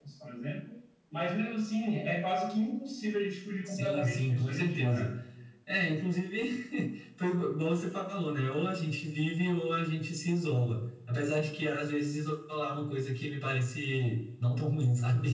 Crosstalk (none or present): present